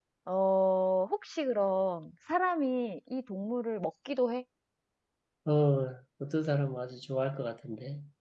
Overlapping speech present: No

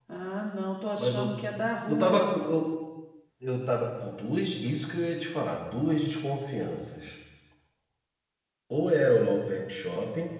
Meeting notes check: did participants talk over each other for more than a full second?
No

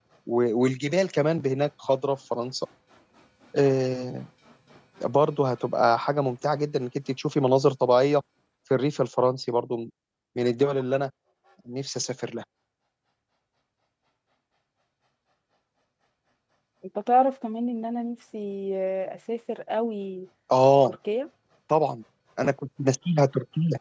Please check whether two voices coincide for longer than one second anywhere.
No

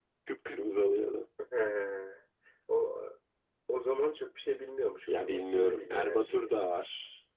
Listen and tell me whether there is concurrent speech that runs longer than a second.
Yes, from 5.1 s

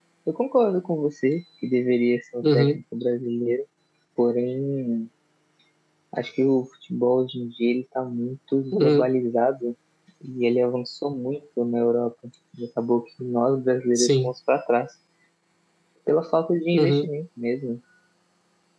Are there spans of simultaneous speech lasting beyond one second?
No

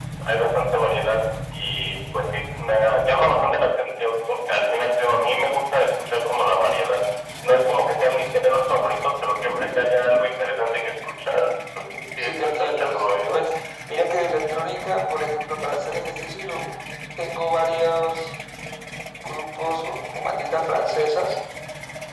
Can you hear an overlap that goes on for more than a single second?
Yes, from 11.9 s

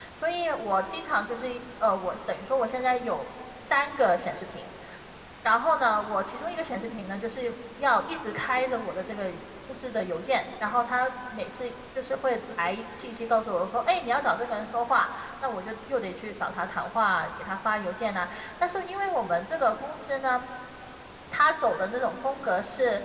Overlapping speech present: No

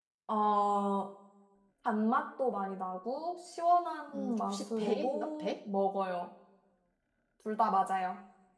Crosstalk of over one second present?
Yes, from 4.1 s

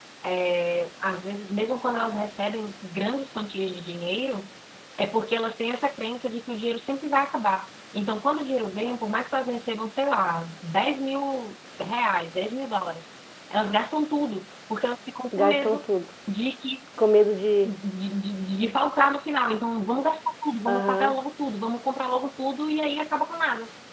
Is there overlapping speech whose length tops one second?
No

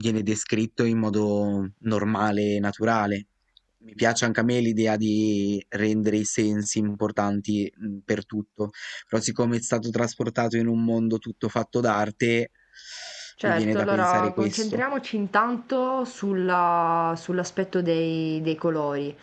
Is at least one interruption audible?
Yes, from 13.4 s

